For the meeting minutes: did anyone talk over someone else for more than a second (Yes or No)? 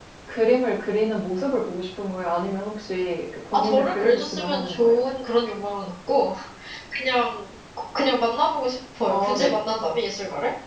Yes